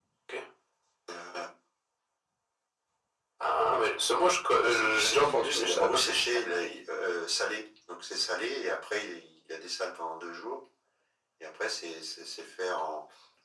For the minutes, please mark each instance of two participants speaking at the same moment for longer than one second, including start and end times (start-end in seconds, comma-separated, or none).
4.6-6.4